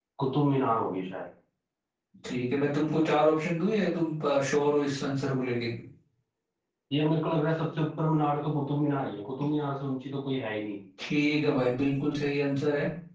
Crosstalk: none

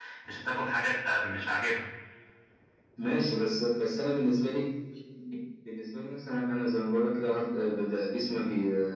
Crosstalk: none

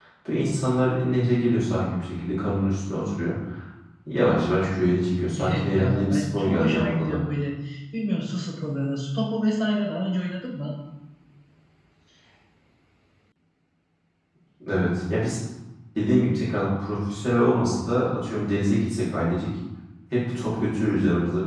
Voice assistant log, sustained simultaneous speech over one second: present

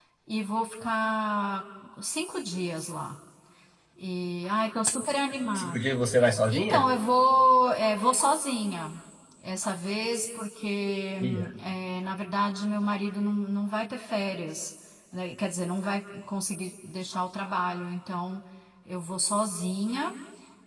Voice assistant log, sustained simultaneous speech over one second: none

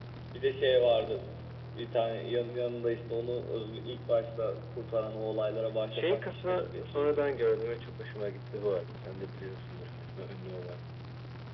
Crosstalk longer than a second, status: present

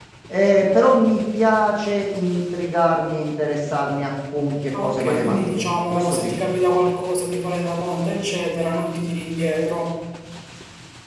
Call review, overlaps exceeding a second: present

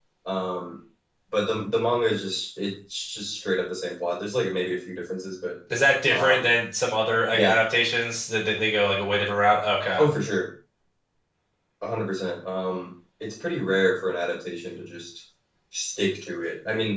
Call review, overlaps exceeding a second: none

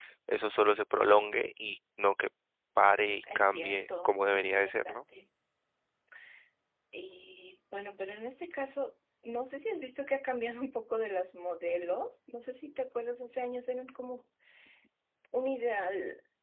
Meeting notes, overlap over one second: present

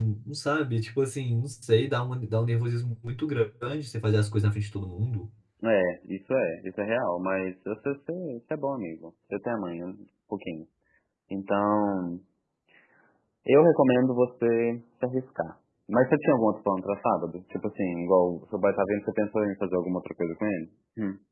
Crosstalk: none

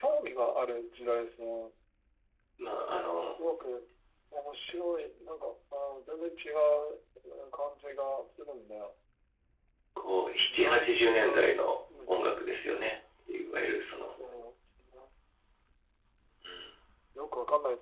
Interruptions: present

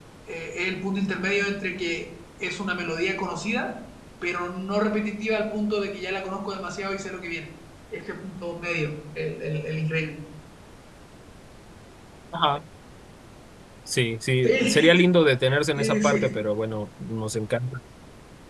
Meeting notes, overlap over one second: none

